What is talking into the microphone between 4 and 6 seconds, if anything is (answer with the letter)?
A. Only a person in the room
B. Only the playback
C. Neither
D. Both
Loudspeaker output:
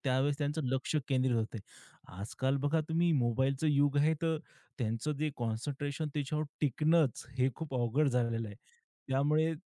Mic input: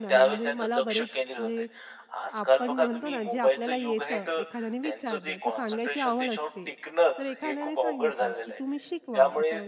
D